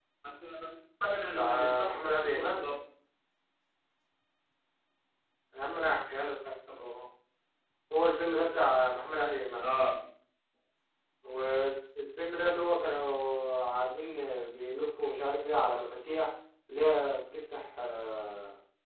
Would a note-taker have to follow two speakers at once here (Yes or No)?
Yes